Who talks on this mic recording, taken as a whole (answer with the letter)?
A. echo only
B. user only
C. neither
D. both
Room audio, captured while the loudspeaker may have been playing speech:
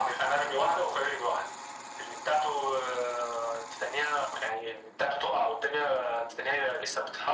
A